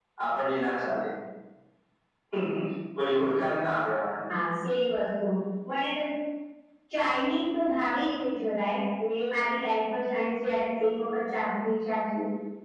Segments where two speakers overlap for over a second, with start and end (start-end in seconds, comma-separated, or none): none